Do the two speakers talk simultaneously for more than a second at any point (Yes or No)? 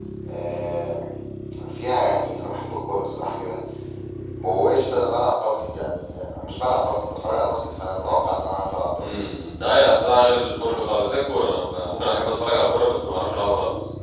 No